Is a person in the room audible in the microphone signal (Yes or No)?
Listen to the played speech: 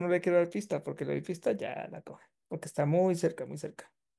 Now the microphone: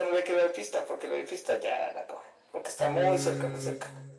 Yes